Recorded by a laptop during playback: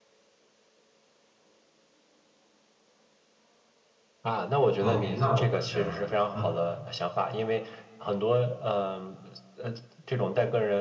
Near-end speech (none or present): present